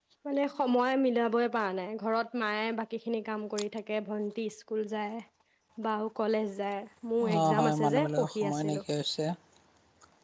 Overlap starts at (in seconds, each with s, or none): 7.2 s